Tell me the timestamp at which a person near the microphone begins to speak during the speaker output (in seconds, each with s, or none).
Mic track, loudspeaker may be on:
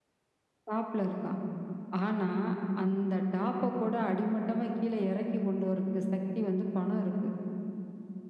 none